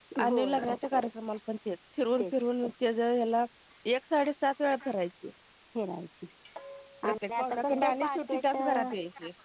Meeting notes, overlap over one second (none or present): present